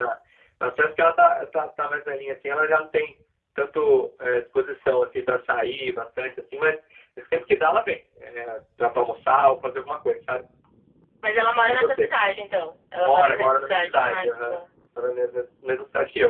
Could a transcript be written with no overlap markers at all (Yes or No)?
No